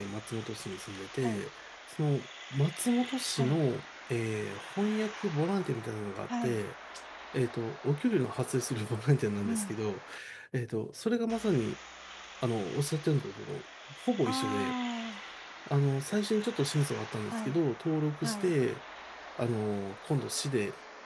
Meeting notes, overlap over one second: none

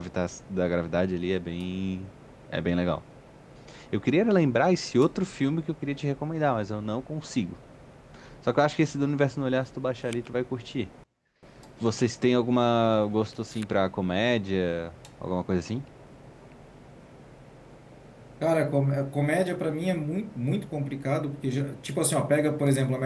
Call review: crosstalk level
none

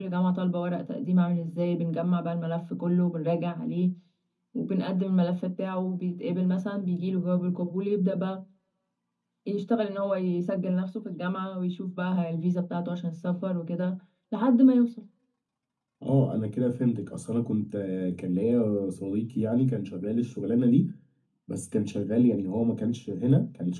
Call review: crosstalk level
none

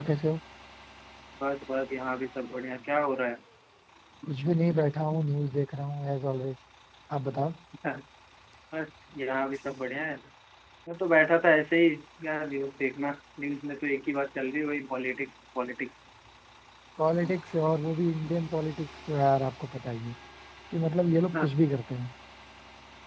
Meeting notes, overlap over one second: none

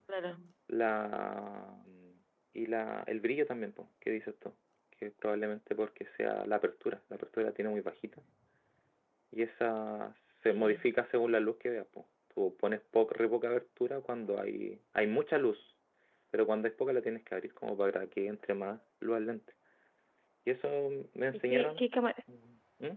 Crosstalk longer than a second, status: none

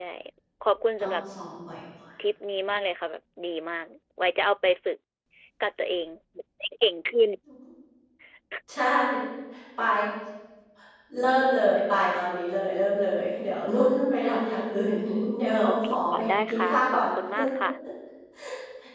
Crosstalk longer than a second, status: present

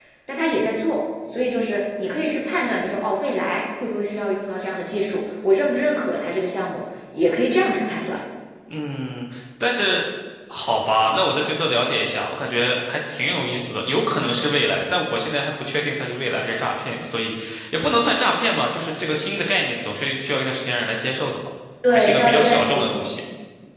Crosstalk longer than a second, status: present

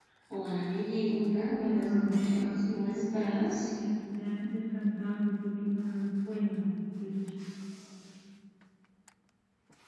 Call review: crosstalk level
present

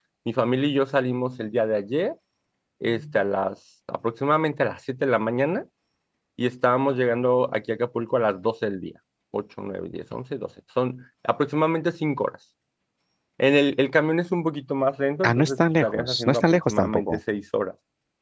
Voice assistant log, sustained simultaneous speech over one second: present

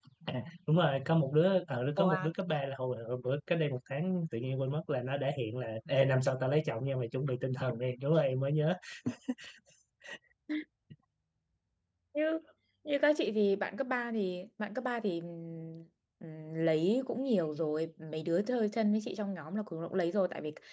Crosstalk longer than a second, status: none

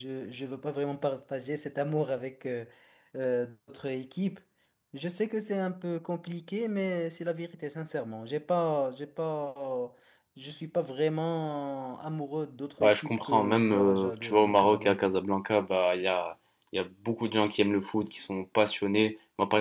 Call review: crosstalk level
present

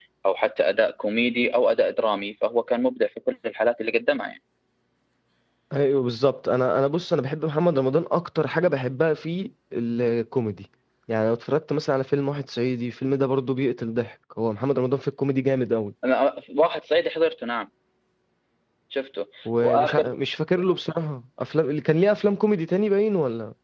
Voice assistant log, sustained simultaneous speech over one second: none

